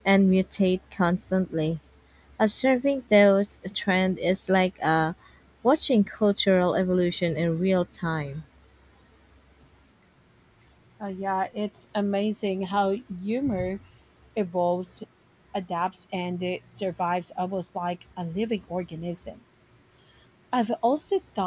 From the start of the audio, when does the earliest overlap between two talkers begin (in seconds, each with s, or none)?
none